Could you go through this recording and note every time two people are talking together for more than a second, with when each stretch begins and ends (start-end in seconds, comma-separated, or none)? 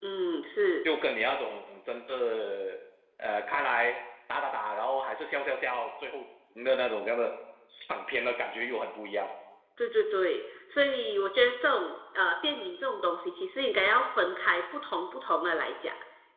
none